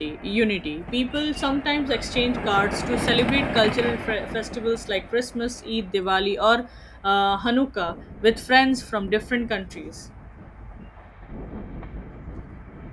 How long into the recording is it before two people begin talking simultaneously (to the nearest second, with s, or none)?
none